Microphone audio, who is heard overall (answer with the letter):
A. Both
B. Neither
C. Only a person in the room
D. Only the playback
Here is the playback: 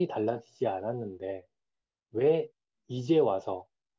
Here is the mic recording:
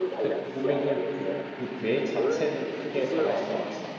A